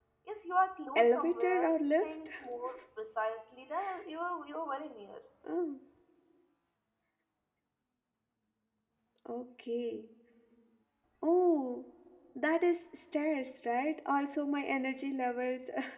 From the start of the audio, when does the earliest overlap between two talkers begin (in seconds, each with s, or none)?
0.9 s